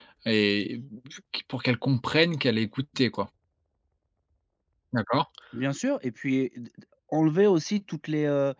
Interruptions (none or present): none